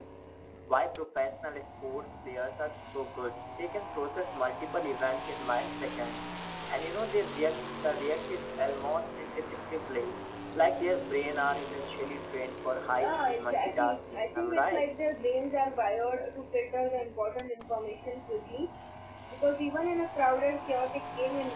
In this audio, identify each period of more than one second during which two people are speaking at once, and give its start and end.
12.9-14.9

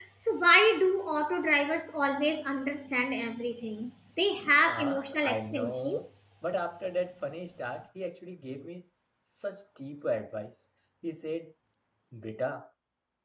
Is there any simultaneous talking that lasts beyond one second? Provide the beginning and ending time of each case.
4.6-6.0

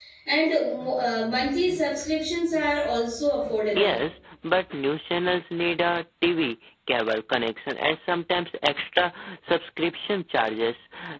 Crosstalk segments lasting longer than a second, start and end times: none

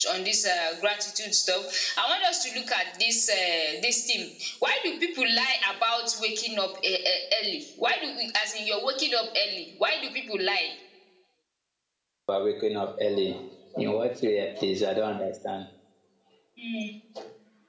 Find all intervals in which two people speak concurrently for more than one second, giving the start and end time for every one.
none

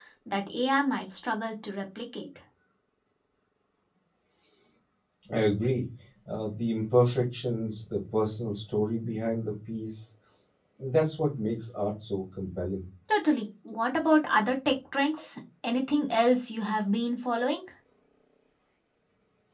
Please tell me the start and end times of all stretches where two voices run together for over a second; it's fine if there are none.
none

